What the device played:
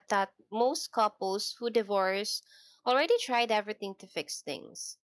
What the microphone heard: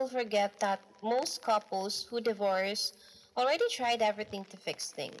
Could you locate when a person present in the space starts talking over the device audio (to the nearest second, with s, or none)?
none